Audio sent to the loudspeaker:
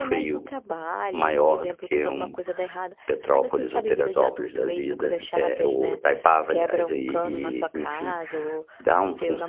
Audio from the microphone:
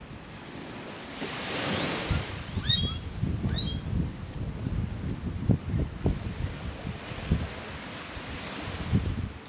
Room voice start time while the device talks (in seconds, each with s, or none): none